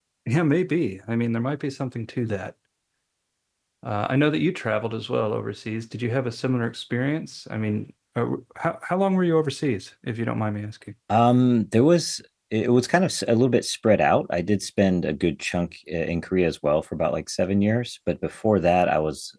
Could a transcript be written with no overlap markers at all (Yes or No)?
Yes